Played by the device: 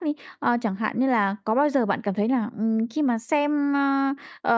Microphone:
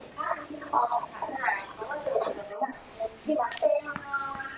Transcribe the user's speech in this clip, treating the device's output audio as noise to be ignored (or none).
none